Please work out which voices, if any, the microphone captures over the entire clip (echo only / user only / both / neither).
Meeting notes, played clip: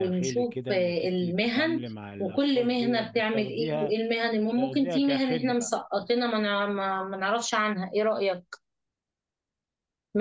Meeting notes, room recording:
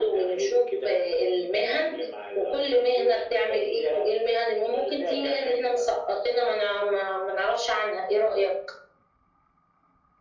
echo only